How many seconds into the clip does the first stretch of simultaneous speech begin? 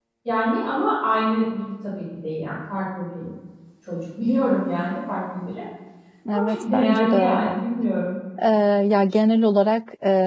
6.3 s

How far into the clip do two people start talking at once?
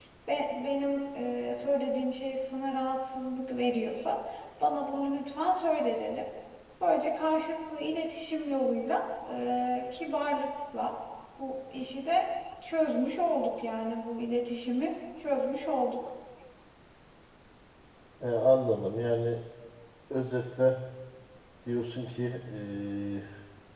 none

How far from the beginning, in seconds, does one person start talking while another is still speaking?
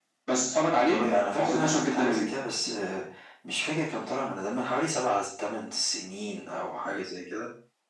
0.8 s

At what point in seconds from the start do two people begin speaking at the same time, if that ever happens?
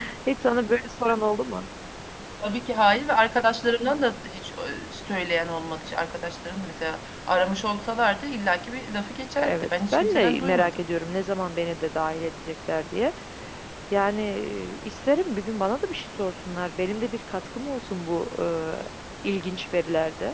9.4 s

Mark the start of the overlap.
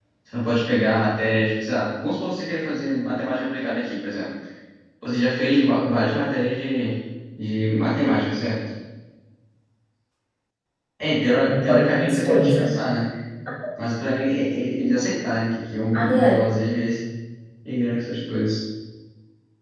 11.5 s

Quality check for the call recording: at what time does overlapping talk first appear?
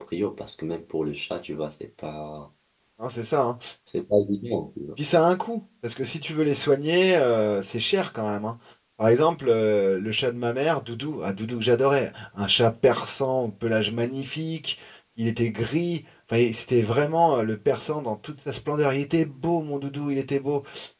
none

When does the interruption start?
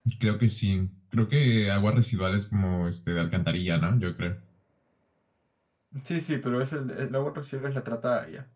none

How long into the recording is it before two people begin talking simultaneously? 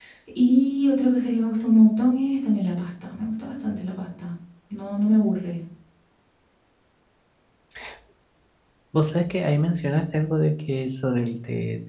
none

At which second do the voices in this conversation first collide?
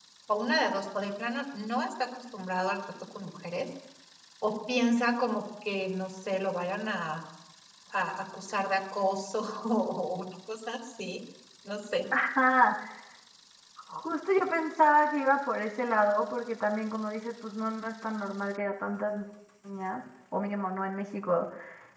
none

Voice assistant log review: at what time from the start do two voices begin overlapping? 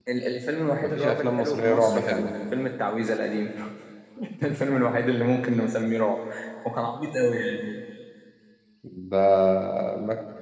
0.8 s

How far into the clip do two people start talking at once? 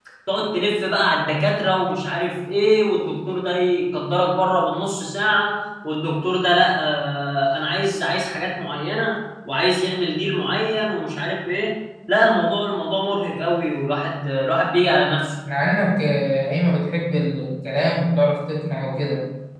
none

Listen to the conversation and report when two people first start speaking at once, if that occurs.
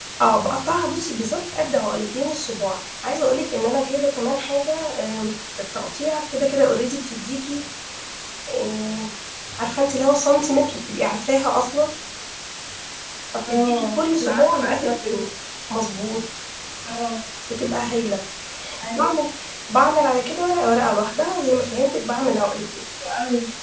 13.5 s

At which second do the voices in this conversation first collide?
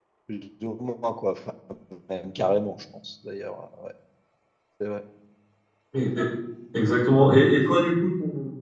none

